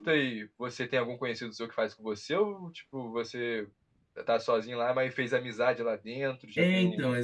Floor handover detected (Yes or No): Yes